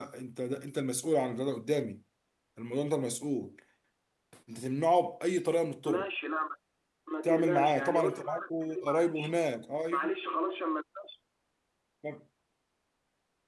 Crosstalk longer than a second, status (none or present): present